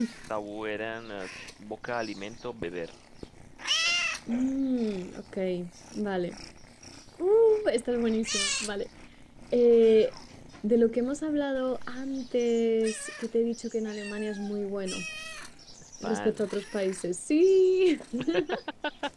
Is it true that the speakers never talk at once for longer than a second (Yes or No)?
Yes